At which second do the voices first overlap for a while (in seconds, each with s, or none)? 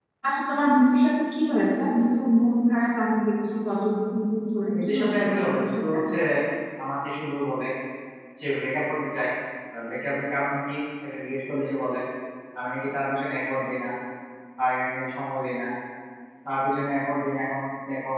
4.7 s